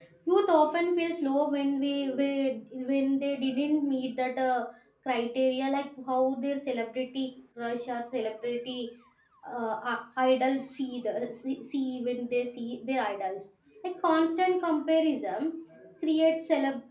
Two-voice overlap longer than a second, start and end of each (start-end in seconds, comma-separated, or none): none